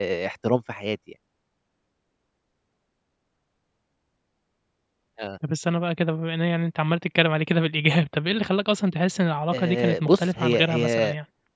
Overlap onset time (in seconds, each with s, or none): 9.5 s